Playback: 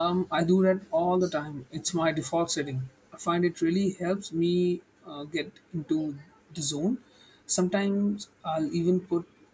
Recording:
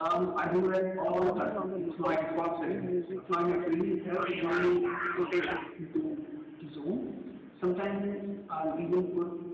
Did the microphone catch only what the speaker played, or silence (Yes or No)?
No